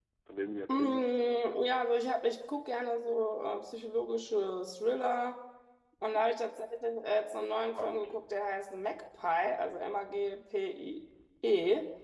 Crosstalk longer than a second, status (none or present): none